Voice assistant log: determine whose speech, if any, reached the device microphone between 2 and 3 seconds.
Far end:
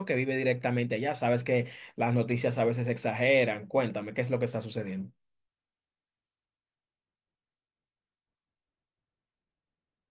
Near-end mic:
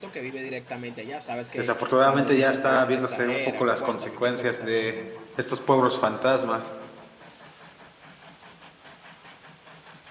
both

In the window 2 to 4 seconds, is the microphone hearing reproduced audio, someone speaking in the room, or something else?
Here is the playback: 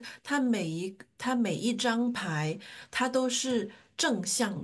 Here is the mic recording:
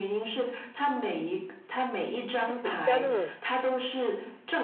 both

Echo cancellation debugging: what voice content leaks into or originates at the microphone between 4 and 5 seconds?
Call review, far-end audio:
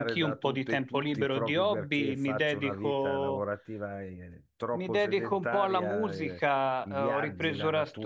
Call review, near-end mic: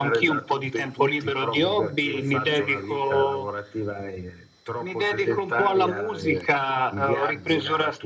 echo only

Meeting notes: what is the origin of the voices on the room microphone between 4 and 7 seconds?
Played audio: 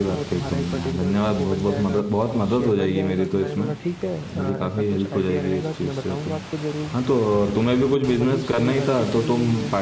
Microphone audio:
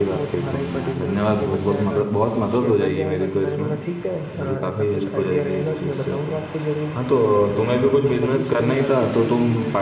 echo only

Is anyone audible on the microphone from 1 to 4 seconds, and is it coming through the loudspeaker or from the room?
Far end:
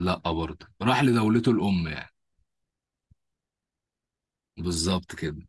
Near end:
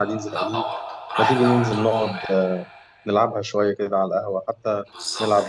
both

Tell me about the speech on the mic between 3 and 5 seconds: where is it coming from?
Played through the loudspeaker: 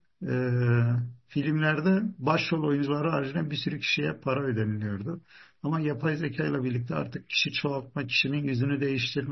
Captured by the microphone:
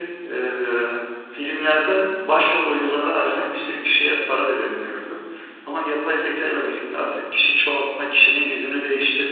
echo only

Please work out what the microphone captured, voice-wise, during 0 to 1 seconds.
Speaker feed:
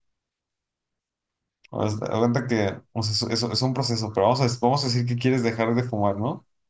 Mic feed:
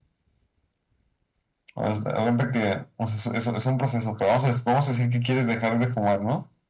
neither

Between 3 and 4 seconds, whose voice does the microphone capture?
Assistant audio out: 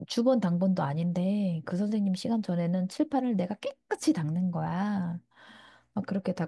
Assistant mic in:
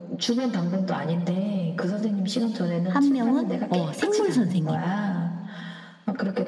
both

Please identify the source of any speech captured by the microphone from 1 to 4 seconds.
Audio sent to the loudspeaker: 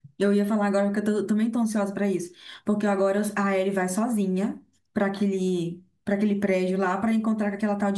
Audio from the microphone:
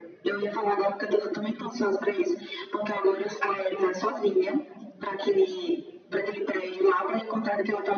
echo only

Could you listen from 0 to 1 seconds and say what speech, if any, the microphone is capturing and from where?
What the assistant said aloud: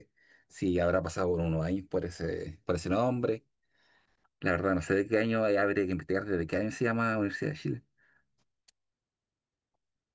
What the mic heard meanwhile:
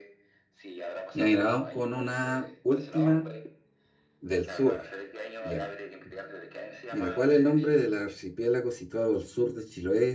echo only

